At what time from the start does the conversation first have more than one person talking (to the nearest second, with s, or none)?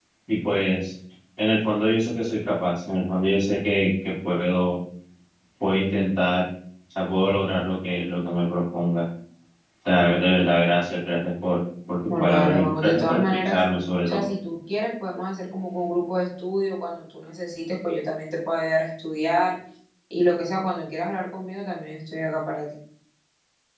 12 s